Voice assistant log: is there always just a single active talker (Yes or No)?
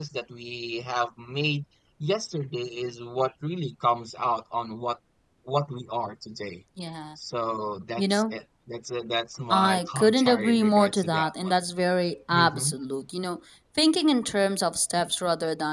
No